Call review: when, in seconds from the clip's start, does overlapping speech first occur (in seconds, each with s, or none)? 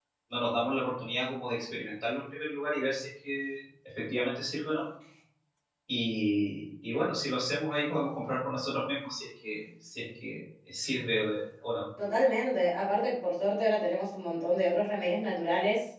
none